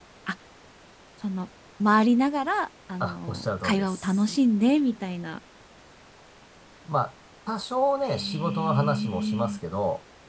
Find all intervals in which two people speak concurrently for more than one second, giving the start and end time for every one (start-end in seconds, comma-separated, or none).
3.0-4.4, 8.2-9.6